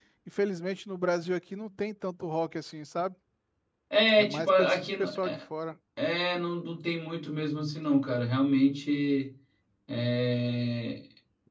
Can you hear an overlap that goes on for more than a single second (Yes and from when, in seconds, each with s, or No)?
Yes, from 4.2 s